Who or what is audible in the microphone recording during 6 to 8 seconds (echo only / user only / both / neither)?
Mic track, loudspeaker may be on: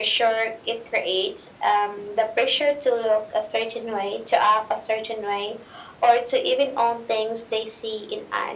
echo only